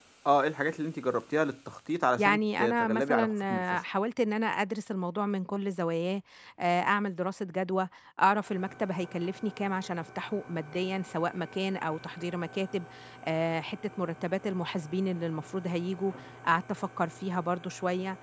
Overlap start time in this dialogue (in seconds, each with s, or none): 2.2 s